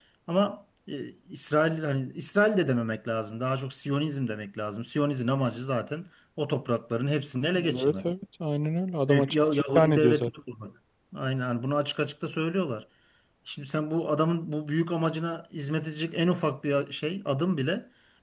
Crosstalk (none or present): present